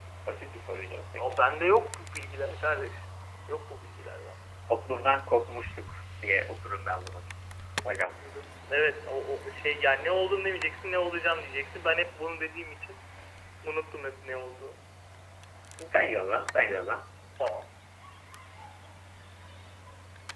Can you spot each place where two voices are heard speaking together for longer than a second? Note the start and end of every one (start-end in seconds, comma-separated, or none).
none